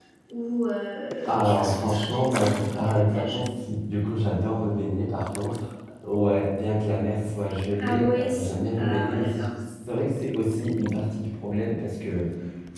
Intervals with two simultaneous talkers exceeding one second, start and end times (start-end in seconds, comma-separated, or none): 1.3-3.4, 7.8-9.5